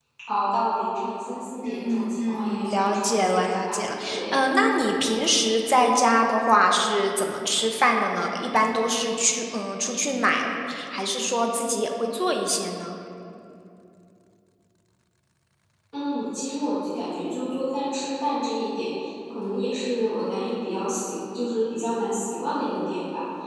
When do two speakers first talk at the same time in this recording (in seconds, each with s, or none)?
1.6 s